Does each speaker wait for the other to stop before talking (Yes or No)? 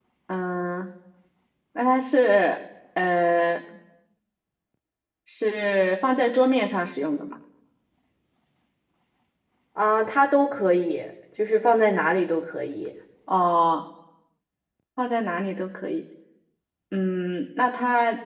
Yes